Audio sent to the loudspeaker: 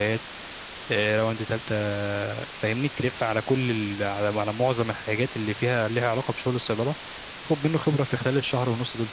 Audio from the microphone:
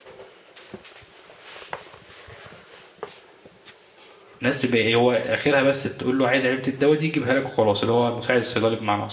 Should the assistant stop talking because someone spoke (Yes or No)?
Yes